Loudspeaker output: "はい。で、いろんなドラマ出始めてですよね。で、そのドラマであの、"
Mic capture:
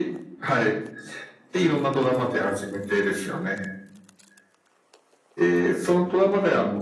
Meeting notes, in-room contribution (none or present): none